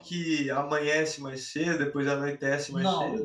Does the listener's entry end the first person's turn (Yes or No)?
Yes